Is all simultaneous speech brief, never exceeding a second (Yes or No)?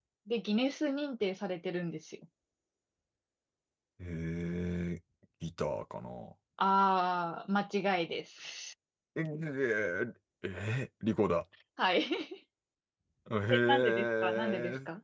No